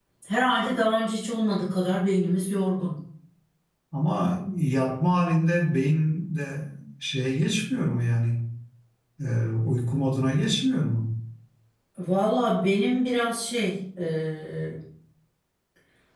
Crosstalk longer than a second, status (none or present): none